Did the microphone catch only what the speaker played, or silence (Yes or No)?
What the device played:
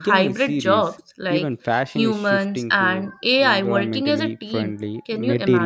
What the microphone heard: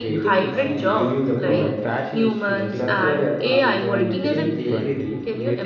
No